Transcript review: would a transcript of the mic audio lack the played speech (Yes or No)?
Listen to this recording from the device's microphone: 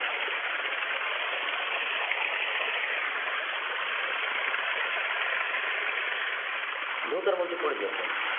Yes